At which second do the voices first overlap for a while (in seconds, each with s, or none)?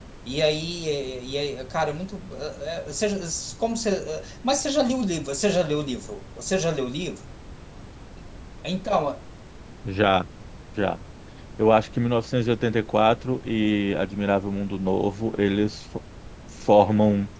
none